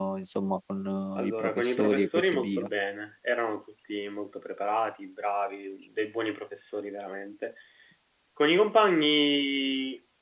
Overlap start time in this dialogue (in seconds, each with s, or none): 1.2 s